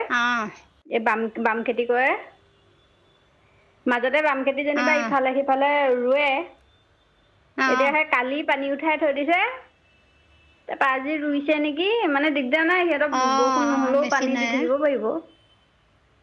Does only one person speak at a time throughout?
No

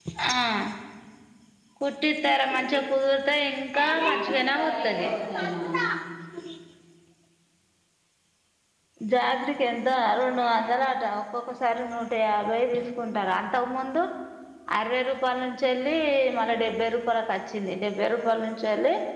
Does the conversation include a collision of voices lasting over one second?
Yes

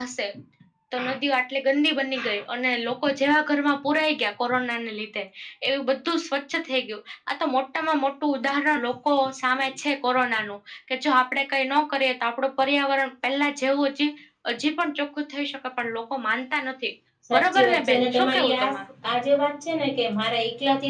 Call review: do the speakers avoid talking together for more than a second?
No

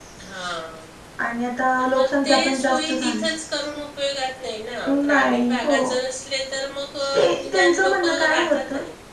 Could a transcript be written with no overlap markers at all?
No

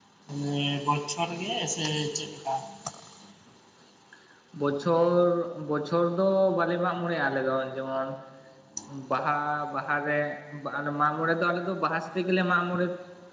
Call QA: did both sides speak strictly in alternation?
Yes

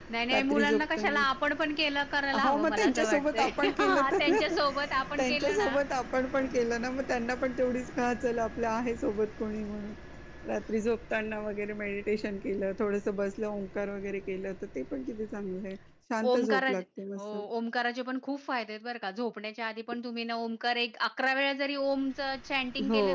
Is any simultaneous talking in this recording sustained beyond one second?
Yes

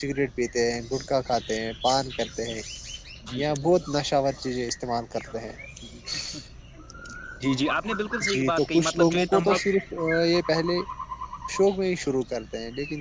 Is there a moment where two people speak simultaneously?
Yes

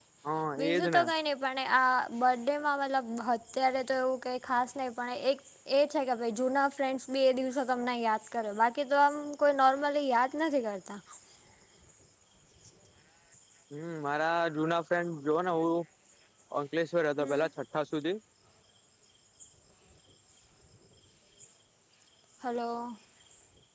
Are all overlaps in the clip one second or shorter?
Yes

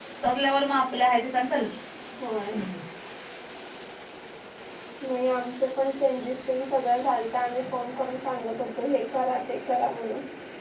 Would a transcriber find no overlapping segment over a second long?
Yes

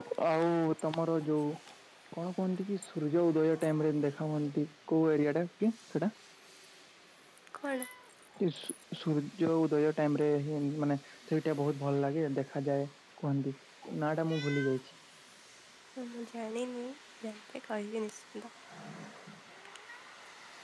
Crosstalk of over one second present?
No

